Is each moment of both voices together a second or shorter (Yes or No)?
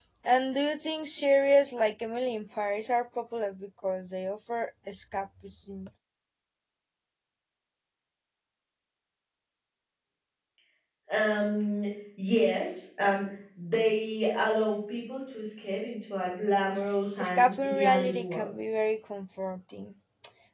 No